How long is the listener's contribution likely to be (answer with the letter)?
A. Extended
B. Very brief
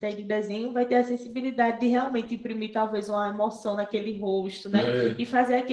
B